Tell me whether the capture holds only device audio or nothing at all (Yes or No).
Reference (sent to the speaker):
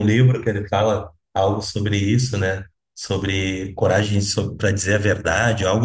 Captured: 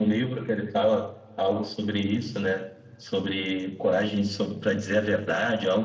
Yes